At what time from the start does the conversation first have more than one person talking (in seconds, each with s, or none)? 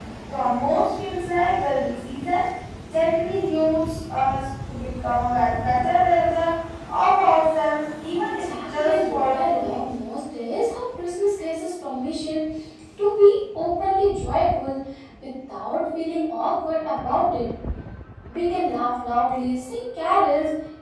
8.4 s